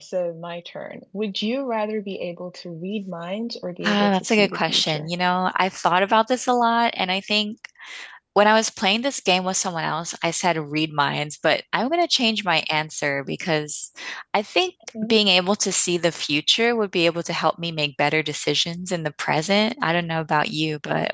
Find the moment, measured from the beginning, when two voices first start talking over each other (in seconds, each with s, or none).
3.8 s